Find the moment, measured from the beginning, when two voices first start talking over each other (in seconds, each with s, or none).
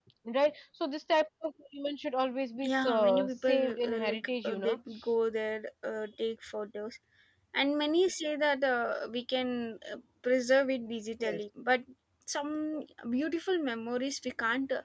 2.6 s